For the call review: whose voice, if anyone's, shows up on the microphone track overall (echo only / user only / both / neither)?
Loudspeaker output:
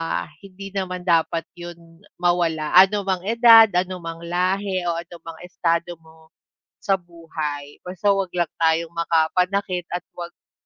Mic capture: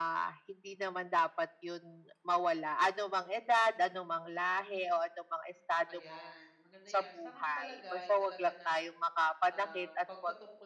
both